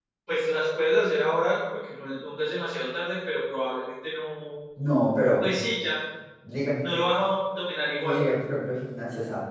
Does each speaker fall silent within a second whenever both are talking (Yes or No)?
Yes